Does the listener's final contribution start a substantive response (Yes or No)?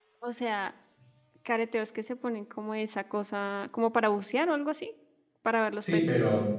Yes